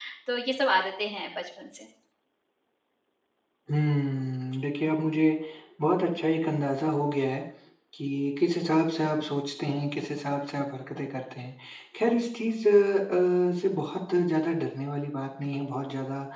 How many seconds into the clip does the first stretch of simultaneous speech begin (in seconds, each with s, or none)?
none